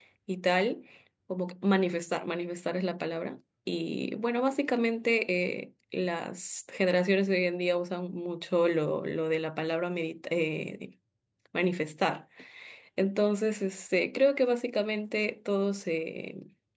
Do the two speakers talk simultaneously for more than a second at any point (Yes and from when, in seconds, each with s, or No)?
No